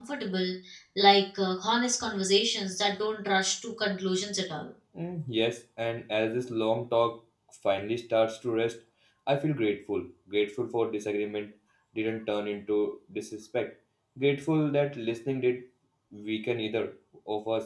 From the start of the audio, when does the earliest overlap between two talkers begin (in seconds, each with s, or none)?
none